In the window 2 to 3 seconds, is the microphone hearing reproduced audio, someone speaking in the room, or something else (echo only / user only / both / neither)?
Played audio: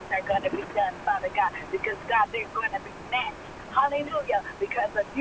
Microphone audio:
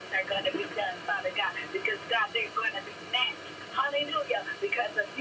echo only